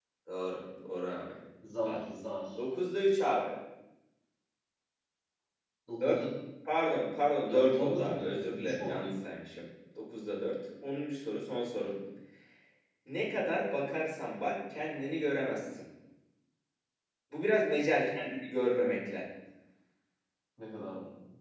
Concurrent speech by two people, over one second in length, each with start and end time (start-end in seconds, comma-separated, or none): 7.5-9.1